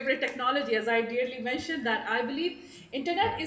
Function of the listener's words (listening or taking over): listening